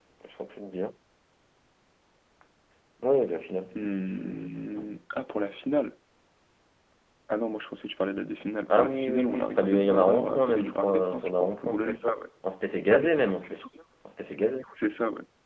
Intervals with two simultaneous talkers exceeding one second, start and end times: 8.7-12.0

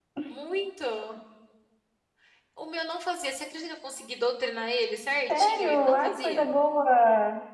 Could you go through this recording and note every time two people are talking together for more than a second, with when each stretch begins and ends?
5.3-6.5

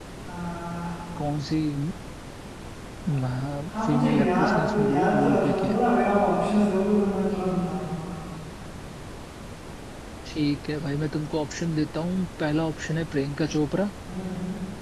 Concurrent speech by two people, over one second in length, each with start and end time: 3.9-5.8

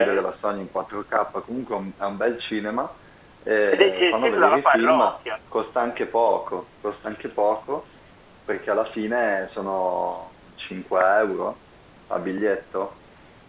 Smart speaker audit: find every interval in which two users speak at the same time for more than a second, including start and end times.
3.7-5.0

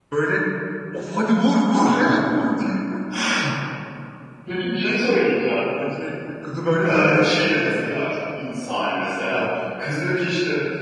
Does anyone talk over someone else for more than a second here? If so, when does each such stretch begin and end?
6.9-8.1

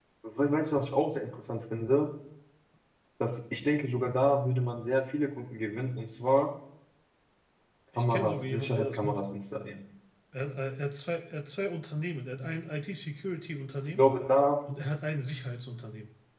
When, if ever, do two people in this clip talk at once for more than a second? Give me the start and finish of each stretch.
8.0-9.2

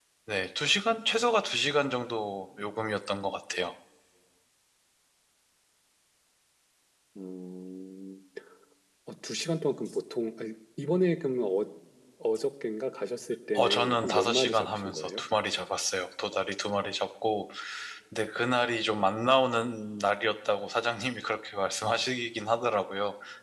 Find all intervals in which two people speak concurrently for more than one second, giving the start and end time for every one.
13.5-15.2

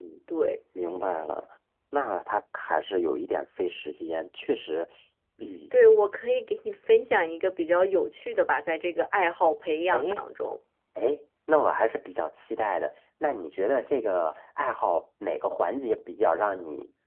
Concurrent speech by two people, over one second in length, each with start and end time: none

